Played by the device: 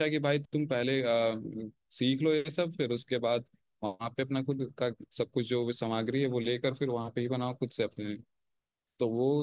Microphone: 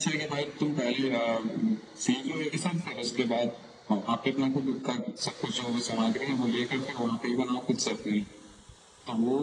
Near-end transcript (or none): none